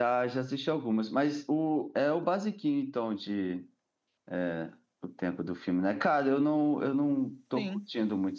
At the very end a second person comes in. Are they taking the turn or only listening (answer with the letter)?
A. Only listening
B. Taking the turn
A